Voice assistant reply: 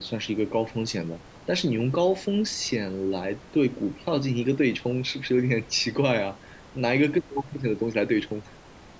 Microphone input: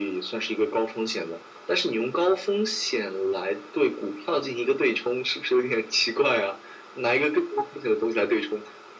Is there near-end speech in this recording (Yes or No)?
No